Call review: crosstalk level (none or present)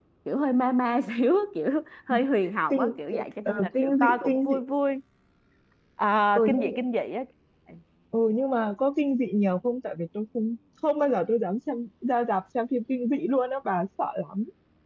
present